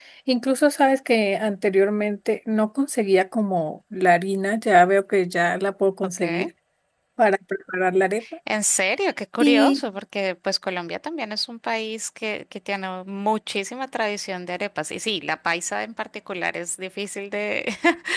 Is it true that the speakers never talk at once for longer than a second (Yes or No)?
Yes